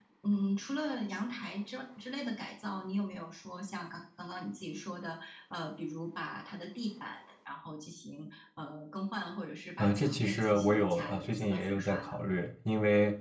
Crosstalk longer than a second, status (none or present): present